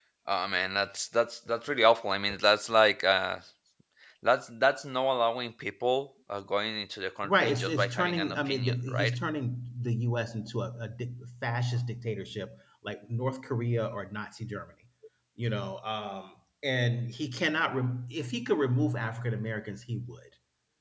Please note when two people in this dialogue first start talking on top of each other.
7 s

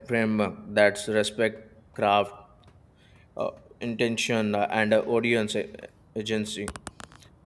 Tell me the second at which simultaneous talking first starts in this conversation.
none

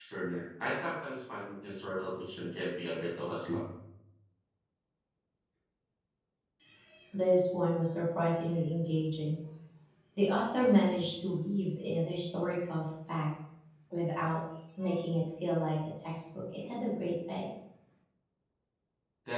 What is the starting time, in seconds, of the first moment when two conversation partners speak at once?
none

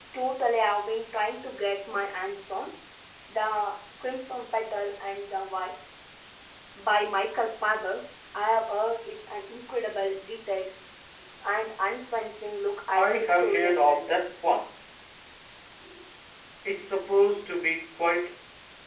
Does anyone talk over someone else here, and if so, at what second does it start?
13 s

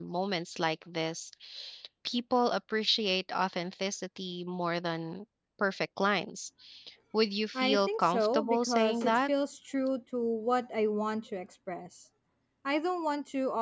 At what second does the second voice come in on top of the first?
8 s

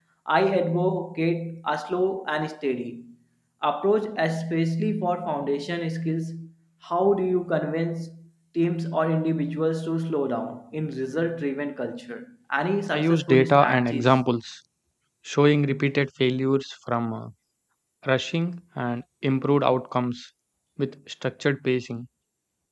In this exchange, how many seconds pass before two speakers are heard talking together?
13 s

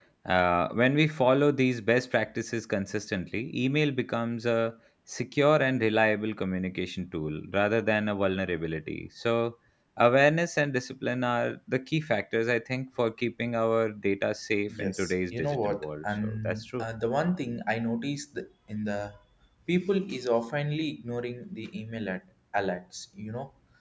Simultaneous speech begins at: 15 s

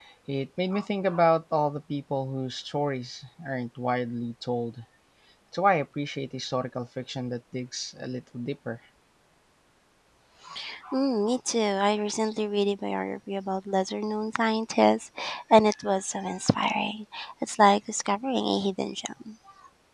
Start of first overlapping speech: none

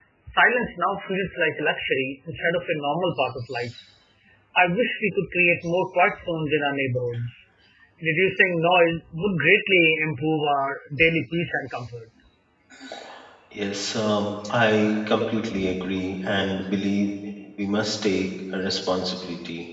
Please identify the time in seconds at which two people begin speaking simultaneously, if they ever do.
none

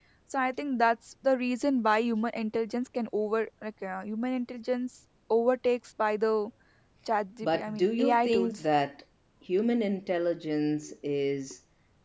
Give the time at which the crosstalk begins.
7 s

